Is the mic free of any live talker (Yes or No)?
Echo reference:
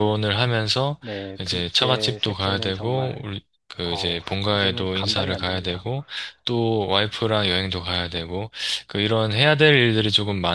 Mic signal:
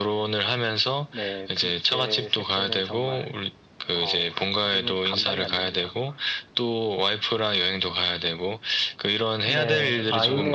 No